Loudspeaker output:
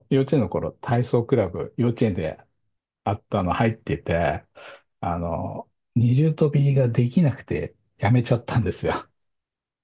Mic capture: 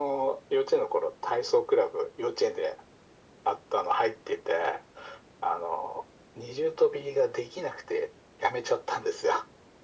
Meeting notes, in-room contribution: none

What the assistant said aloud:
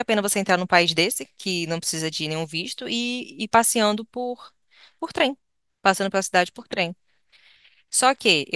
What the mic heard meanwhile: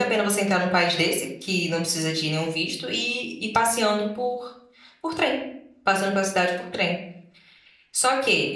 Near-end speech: none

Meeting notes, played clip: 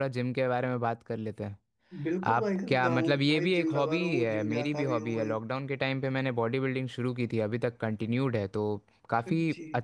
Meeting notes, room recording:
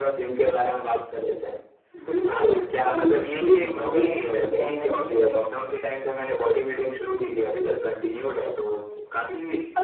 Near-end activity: none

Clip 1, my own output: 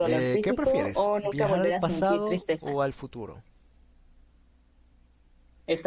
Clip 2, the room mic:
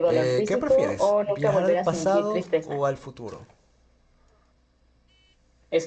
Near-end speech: none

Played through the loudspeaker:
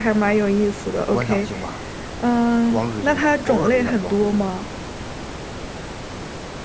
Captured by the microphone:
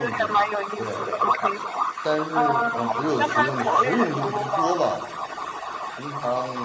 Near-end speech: present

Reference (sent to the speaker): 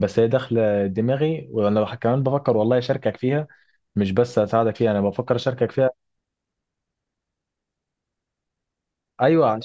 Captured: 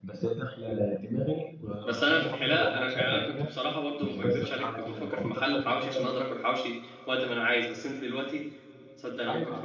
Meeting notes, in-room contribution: present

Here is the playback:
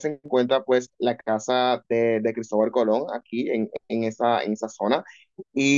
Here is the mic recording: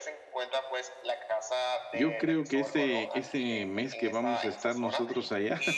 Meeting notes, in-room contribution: present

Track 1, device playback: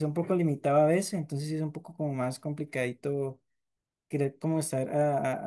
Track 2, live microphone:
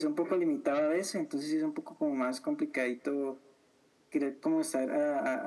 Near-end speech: none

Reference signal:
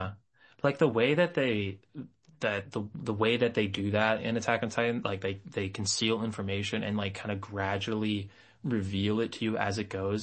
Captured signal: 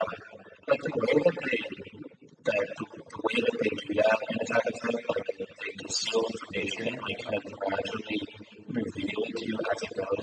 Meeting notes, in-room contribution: present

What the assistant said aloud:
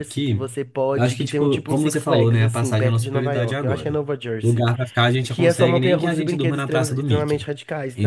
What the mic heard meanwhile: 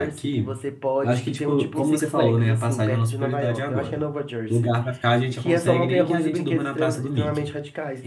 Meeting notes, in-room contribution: none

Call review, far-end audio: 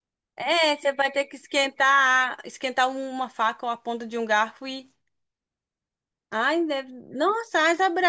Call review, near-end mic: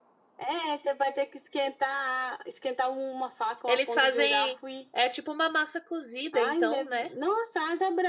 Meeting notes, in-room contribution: present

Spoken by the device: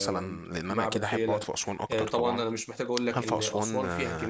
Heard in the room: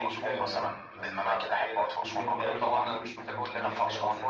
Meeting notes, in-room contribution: present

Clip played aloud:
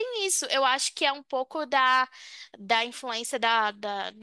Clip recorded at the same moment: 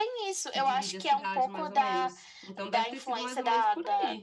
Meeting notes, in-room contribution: present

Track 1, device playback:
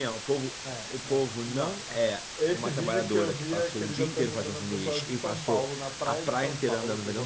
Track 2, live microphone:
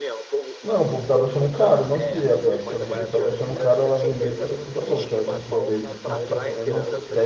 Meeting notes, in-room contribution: present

